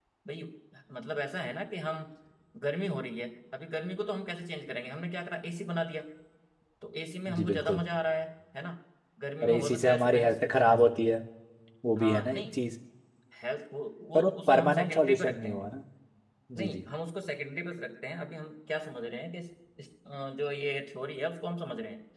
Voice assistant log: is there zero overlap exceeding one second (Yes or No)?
No